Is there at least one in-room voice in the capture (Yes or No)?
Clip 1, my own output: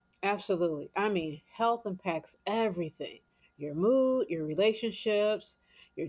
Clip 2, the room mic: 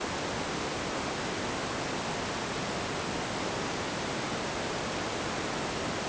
No